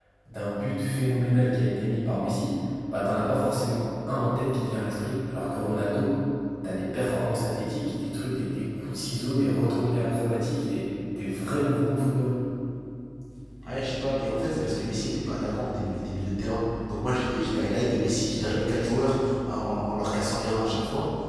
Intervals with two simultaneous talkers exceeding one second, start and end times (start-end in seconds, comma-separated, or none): none